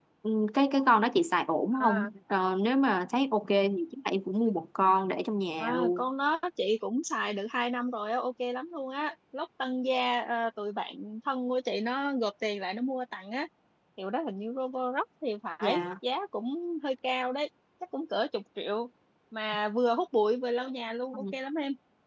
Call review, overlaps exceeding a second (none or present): none